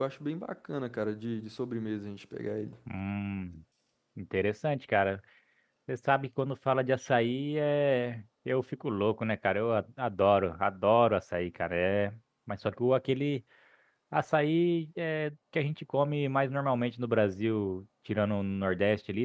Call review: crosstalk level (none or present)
none